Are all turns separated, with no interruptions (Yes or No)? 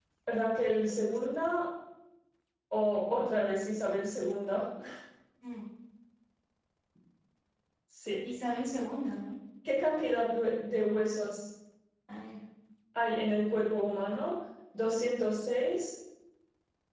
Yes